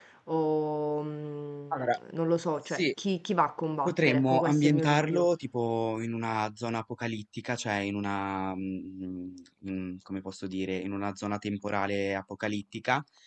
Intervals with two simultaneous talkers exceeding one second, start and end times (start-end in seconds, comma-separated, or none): 3.9-5.3